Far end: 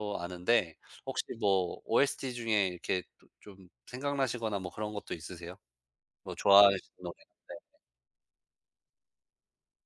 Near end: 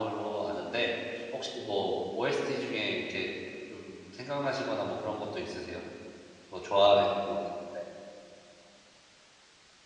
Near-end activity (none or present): none